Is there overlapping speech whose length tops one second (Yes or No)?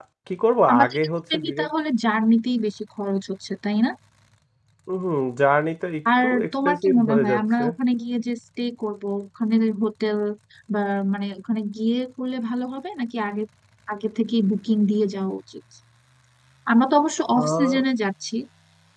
Yes